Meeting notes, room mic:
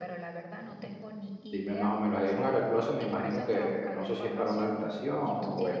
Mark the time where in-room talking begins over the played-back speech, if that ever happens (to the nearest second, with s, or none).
2 s